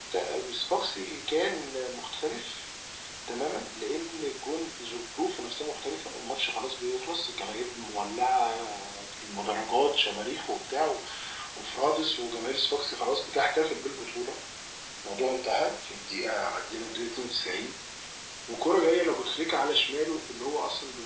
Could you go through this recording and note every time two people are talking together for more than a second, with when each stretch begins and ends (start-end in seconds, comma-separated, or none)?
none